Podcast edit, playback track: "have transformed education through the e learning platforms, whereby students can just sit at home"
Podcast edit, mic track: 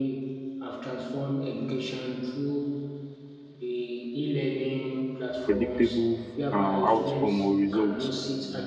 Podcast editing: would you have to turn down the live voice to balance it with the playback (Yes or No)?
Yes